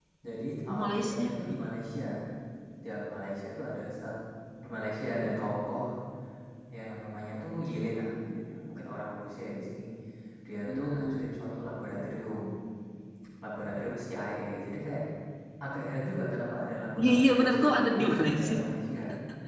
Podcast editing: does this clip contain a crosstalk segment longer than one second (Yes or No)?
Yes